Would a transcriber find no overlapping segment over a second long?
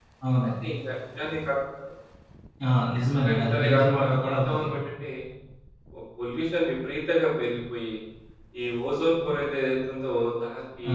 No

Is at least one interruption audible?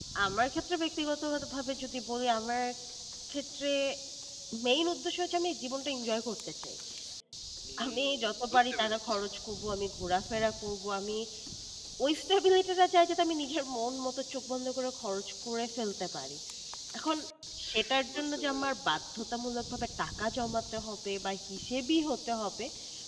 Yes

